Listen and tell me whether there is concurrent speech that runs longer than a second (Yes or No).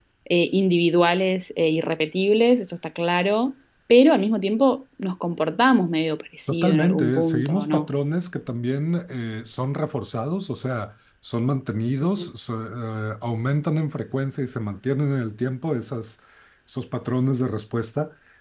Yes